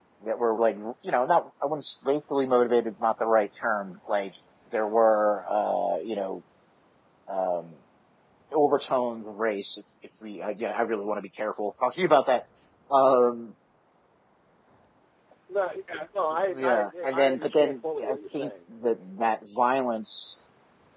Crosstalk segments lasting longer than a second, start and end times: 16.6-18.5

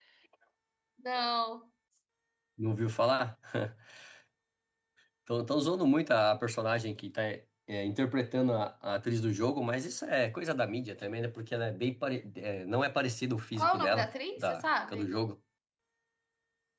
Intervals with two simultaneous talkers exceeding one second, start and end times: 13.6-15.1

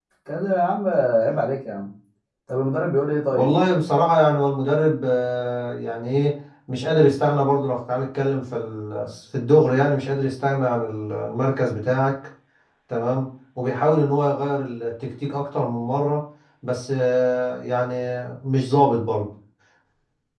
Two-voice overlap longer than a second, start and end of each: none

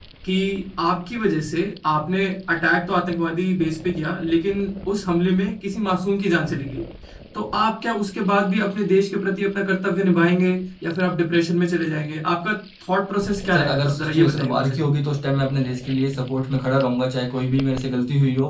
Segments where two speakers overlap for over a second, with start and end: 13.5-14.8

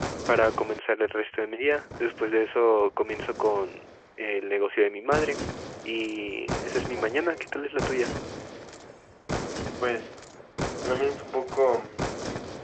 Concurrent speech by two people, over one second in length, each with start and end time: none

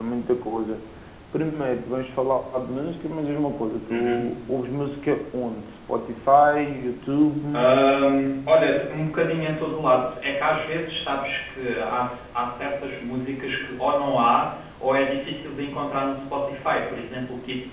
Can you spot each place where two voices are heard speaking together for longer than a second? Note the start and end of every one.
none

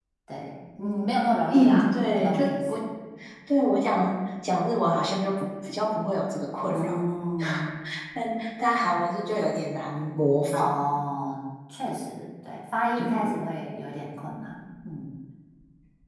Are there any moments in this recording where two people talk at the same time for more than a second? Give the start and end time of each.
1.5-2.8

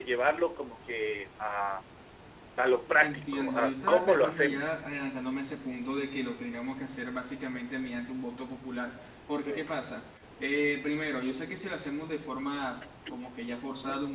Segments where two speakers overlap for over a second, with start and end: 3.0-4.7

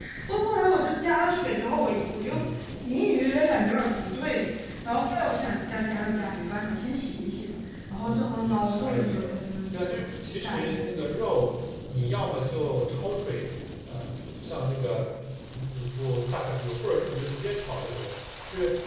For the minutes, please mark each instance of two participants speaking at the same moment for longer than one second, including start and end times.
8.0-9.3

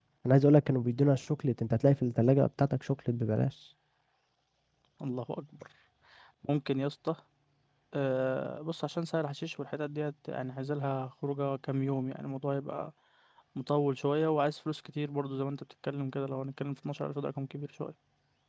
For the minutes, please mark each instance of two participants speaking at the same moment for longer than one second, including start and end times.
none

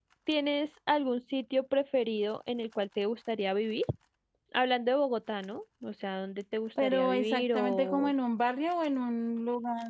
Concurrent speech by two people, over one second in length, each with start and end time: 6.8-8.1

